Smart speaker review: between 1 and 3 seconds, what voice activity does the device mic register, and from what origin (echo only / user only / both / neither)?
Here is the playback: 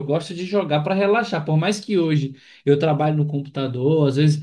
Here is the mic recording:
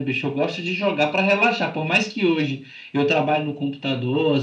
echo only